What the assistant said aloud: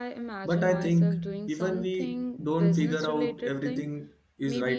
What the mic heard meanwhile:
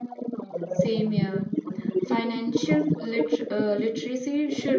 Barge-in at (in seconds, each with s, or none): 0.7 s